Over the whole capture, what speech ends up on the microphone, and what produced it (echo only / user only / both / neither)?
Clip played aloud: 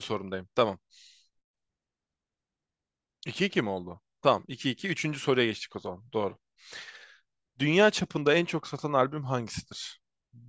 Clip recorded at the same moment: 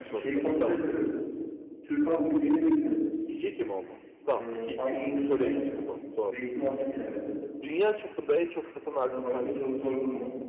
both